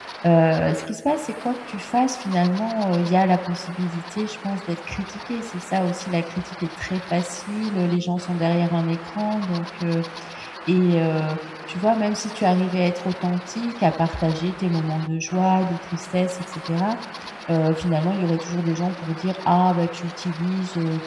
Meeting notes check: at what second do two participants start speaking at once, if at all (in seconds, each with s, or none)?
none